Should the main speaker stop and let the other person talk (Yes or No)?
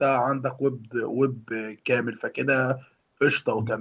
Yes